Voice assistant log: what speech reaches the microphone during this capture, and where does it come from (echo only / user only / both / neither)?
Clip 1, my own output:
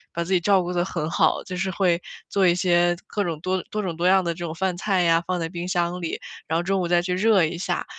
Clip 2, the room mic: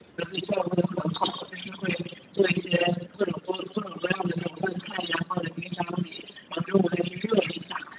echo only